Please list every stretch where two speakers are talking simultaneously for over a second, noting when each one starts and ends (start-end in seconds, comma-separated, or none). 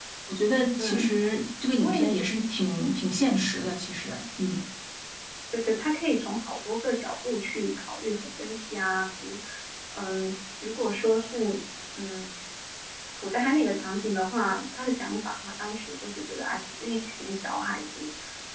none